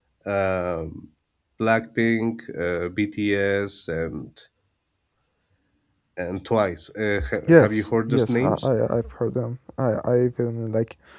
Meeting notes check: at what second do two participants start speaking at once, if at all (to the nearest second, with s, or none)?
7 s